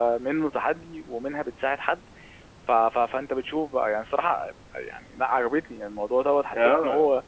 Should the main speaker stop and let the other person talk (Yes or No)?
No